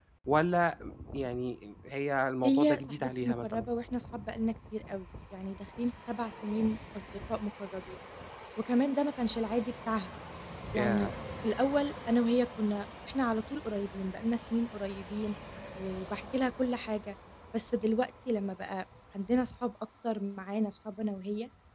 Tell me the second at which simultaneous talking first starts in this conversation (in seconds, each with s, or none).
2.4 s